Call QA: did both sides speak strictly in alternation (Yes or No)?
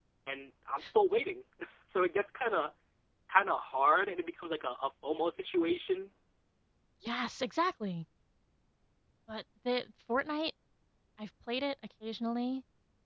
Yes